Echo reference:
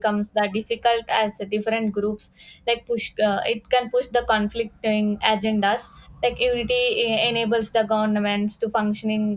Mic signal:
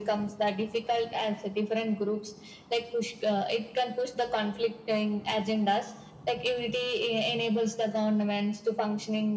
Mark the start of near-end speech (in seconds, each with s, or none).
none